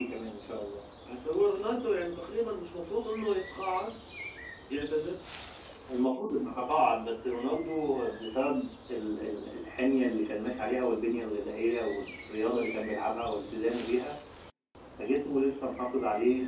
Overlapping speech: No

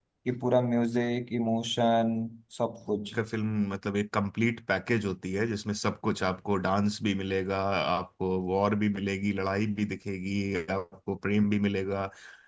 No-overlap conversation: Yes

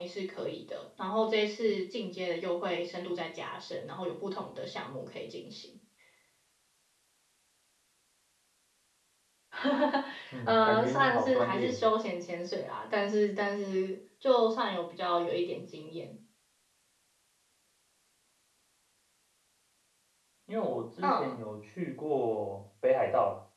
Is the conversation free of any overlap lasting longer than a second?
No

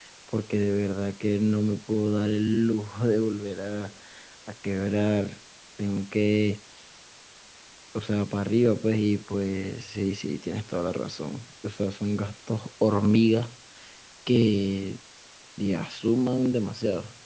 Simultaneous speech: No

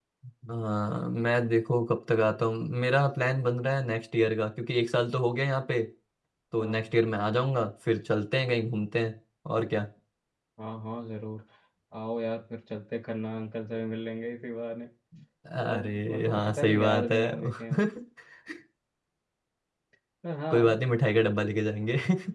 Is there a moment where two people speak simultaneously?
Yes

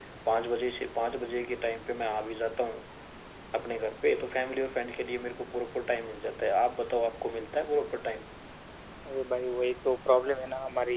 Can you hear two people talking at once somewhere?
No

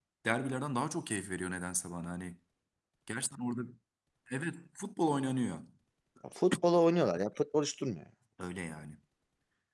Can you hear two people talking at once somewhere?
No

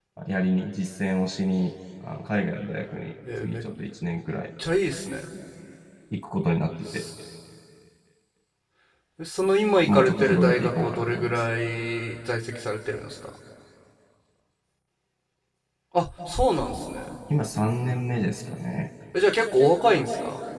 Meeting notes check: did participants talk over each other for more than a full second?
Yes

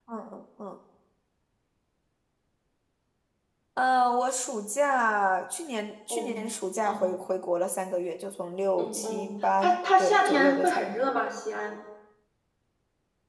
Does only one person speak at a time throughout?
No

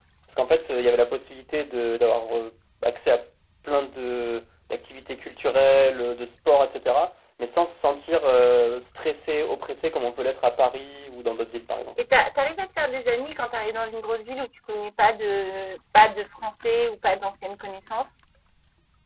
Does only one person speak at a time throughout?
Yes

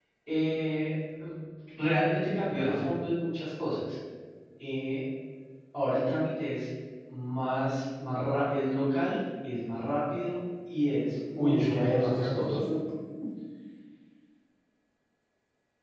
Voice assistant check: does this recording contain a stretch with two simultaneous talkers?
Yes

